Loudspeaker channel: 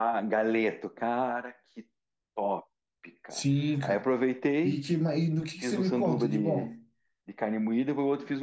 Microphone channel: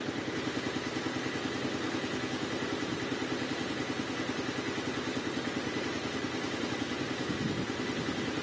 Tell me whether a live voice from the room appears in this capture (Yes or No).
No